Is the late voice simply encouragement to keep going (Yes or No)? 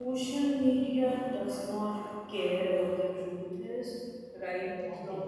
Yes